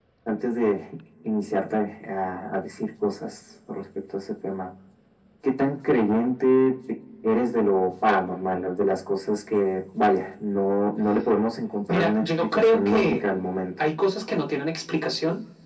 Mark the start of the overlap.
11.9 s

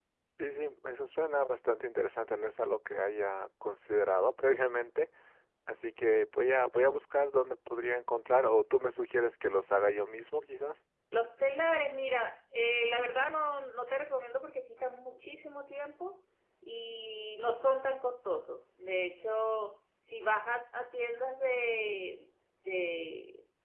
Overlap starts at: none

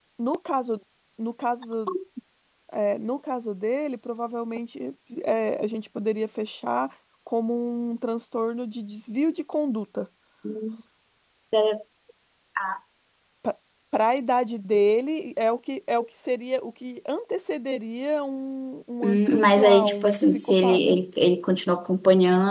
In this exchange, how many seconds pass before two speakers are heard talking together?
19.0 s

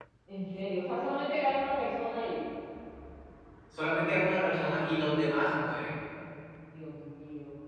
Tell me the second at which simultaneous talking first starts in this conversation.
none

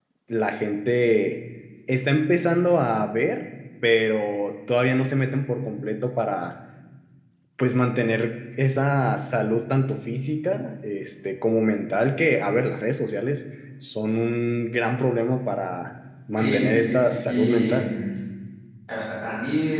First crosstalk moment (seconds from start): 16.4 s

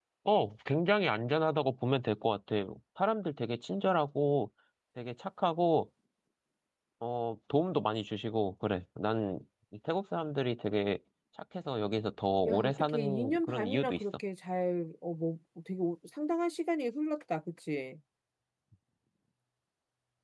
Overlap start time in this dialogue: 12.4 s

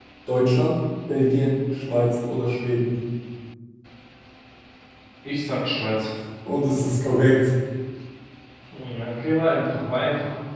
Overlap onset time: none

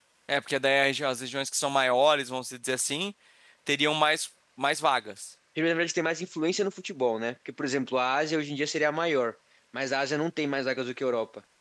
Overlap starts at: none

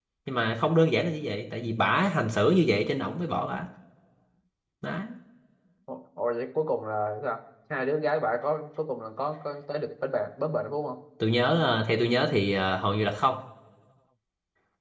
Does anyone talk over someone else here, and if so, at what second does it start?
none

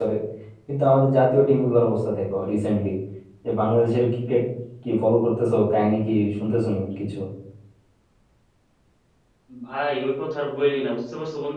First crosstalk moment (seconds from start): none

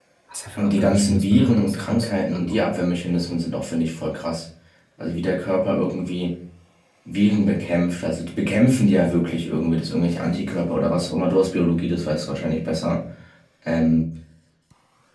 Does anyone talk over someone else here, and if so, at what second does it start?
0.6 s

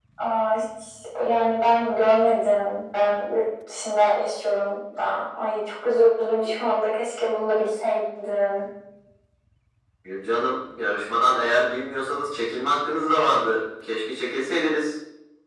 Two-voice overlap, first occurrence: none

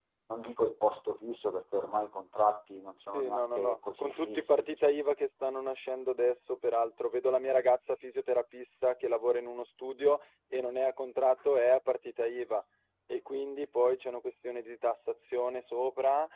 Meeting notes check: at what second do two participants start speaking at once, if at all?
3.1 s

